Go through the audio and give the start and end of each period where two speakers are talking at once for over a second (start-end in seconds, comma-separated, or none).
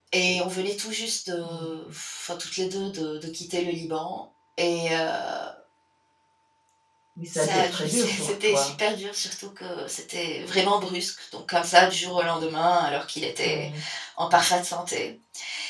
7.3-8.7